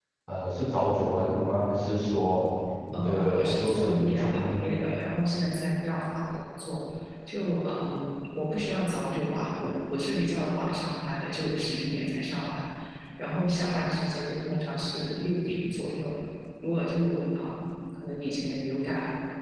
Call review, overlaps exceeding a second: present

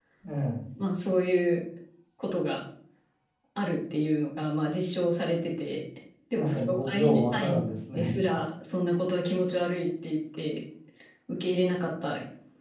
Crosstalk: present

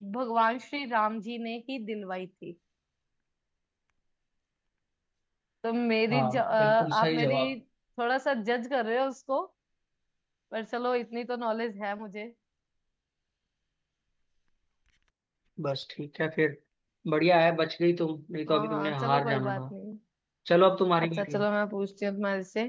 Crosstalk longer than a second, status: present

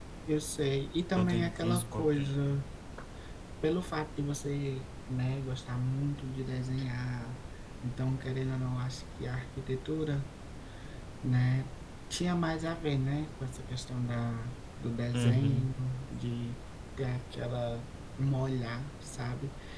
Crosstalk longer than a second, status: present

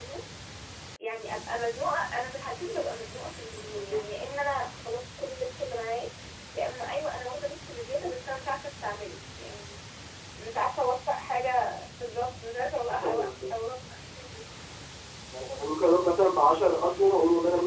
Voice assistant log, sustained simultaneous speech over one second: none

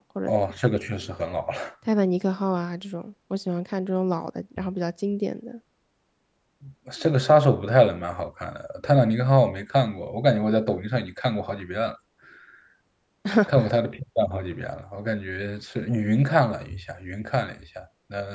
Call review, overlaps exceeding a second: none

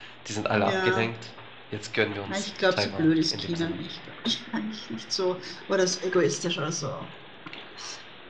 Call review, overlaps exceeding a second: present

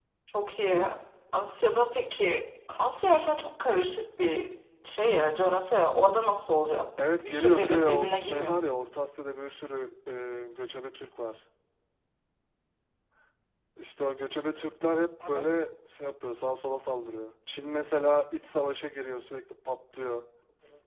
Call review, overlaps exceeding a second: present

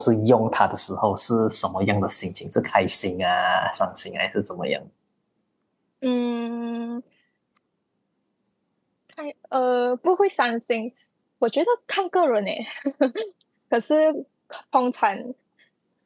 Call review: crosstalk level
none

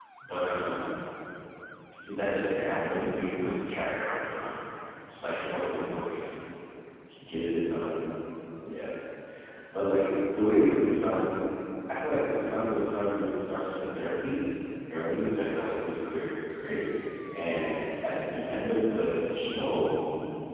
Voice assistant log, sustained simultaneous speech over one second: none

